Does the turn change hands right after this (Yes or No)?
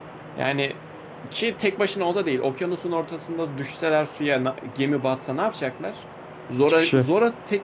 No